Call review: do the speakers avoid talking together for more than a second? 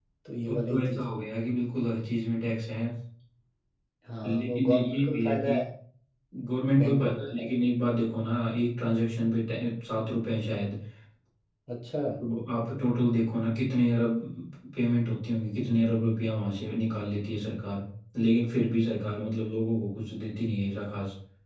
No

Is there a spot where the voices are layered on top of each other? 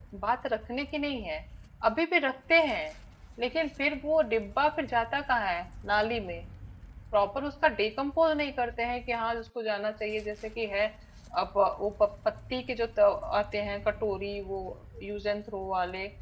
No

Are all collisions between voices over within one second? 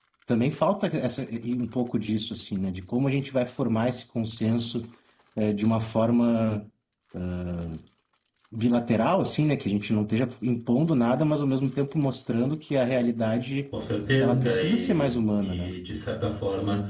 No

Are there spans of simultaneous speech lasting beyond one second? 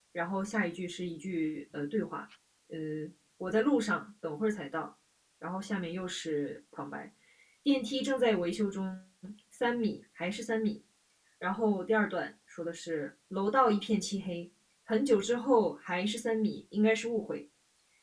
No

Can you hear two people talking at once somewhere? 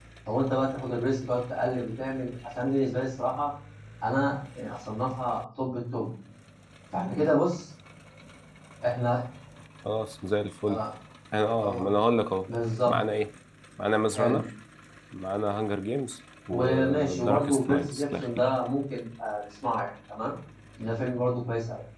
Yes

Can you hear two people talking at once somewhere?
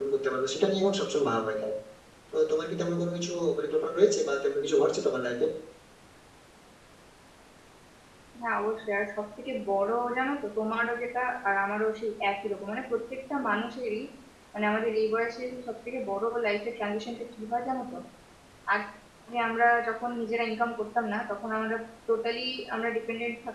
No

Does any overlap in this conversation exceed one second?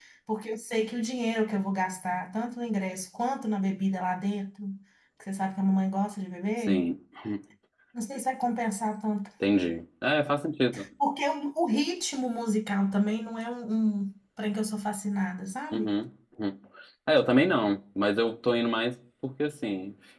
No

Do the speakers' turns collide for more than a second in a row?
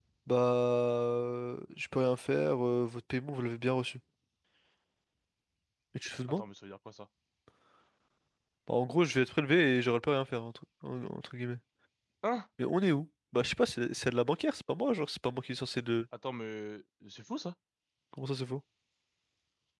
No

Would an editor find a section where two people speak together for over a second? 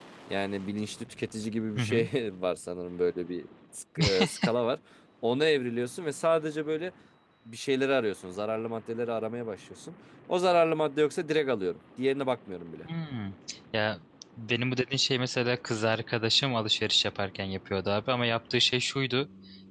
No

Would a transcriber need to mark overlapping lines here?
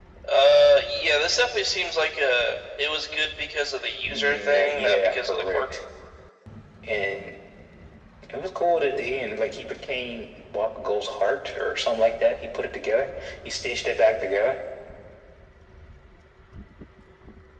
Yes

